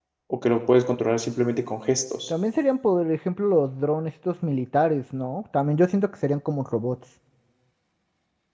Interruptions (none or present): none